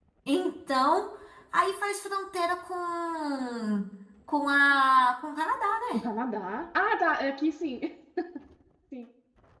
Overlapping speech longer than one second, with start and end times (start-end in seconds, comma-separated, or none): none